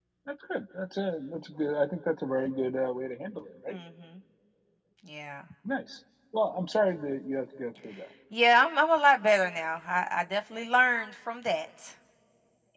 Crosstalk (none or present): none